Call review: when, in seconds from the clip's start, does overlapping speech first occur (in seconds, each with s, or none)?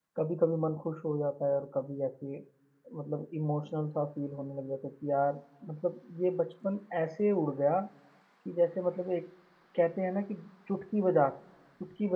none